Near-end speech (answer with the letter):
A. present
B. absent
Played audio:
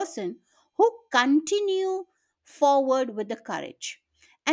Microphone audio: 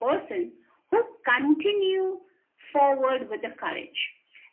B